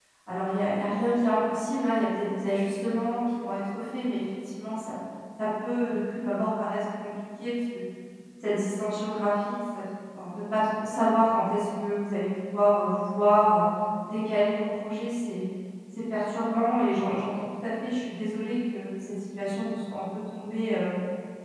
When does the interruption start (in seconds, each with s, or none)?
none